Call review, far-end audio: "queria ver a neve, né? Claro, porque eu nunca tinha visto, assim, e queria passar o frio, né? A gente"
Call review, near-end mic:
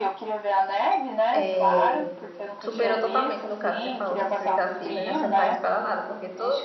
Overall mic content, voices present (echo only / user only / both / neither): both